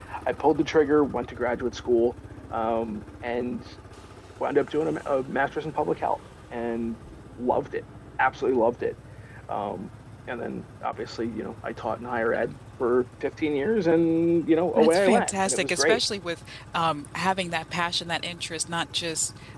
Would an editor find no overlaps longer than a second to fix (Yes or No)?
No